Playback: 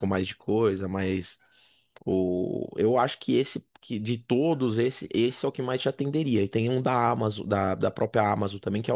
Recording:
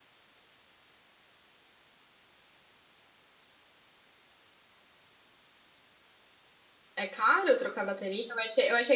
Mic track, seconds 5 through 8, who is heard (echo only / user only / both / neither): user only